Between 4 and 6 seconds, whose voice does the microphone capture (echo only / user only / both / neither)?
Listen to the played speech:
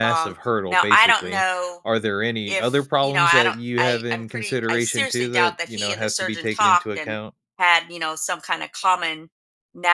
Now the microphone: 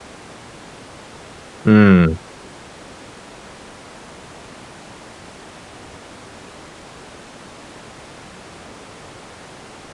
neither